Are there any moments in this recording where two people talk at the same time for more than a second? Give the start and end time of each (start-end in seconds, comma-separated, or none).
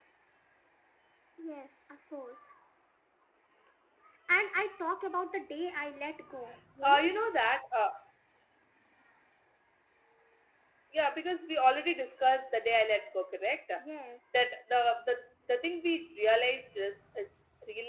none